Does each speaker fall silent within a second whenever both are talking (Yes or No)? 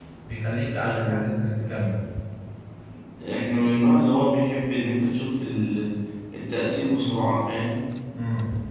Yes